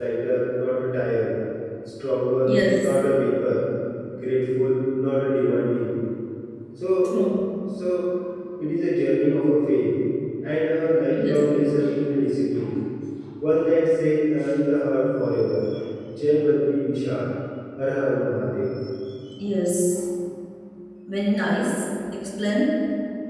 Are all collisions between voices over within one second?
Yes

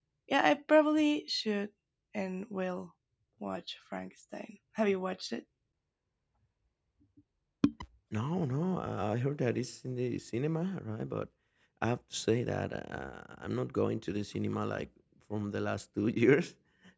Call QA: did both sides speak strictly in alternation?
Yes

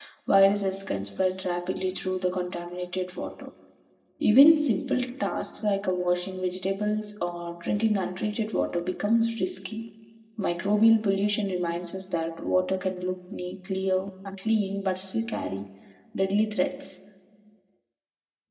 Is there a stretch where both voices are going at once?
No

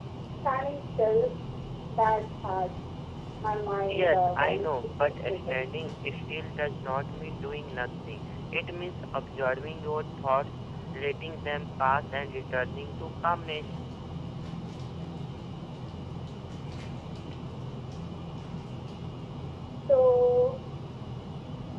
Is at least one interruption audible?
Yes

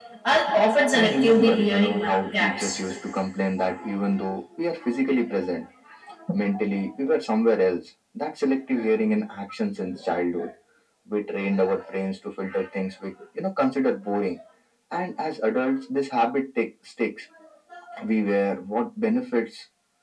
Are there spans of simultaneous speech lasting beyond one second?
Yes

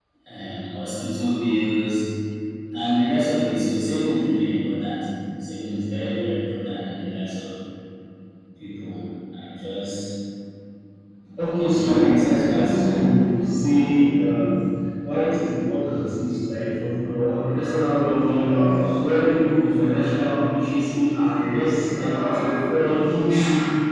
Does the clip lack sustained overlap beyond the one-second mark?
No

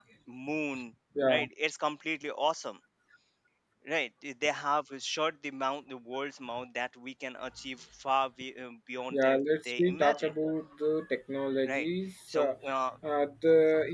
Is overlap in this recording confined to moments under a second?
No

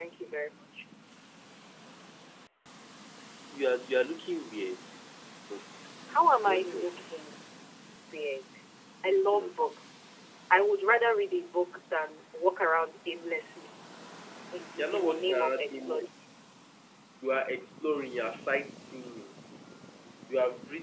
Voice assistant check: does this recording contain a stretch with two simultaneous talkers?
Yes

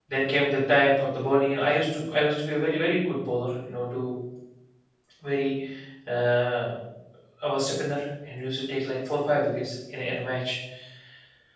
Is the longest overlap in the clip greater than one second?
No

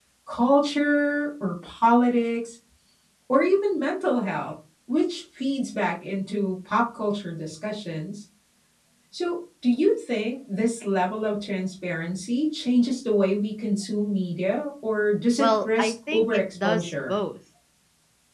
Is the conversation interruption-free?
No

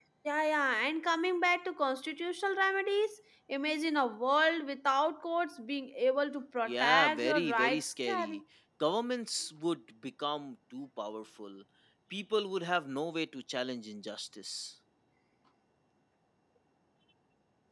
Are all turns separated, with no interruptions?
No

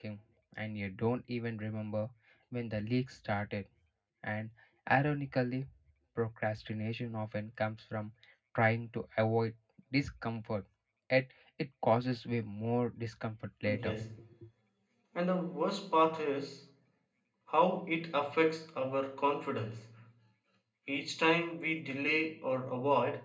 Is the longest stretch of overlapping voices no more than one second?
Yes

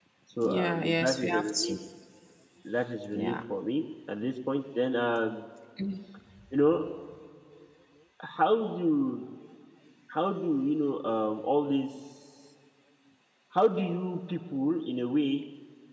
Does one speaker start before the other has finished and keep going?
Yes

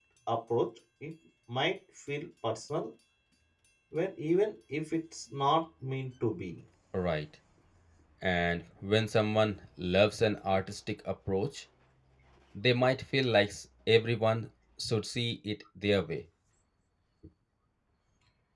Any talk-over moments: No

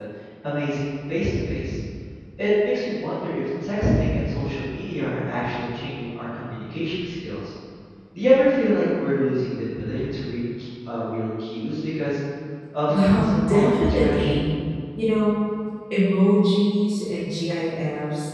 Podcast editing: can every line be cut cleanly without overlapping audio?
No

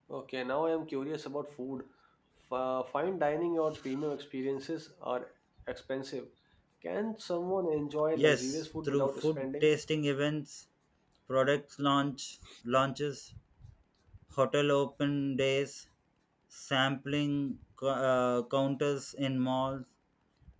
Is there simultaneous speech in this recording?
Yes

